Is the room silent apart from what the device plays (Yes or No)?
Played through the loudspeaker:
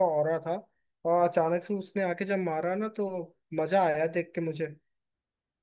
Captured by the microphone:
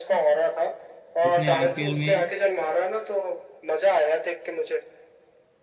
No